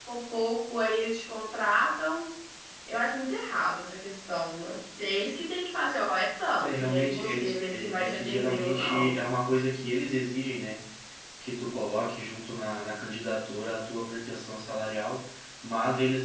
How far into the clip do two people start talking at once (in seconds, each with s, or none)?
6.6 s